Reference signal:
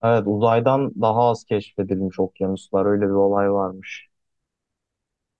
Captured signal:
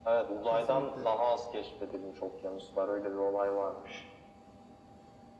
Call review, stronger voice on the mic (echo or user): echo